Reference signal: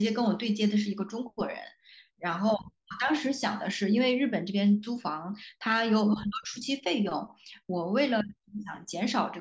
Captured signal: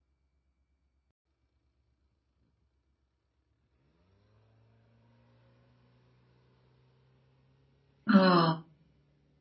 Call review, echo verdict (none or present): none